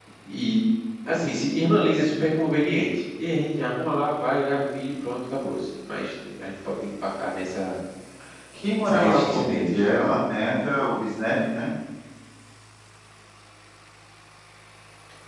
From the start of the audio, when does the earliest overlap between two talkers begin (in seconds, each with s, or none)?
8.8 s